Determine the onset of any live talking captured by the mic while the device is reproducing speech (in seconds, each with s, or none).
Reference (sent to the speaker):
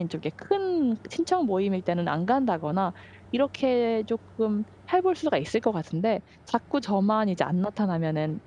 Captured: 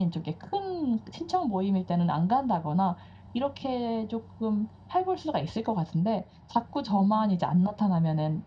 6.8 s